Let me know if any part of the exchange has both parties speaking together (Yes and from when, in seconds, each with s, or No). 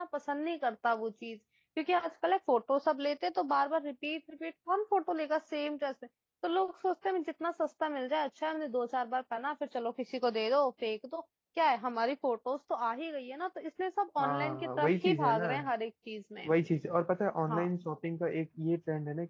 Yes, from 14.2 s